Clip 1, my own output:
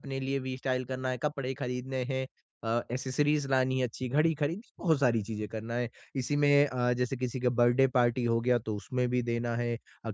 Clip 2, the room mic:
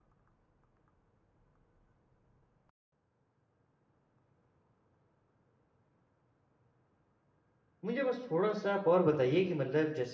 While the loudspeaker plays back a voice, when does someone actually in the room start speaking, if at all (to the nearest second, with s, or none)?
8 s